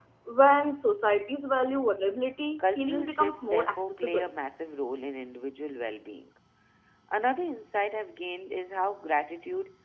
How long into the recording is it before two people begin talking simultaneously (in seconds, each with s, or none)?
2.6 s